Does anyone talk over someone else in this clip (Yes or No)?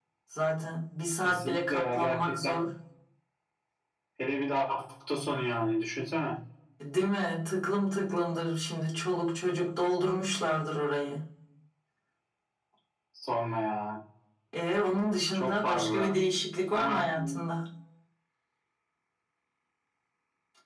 Yes